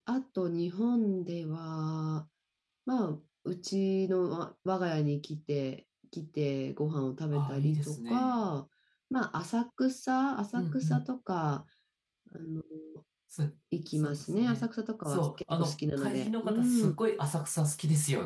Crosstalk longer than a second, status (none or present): present